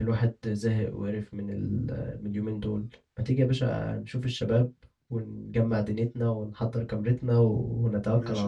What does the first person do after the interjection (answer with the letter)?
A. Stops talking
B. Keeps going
A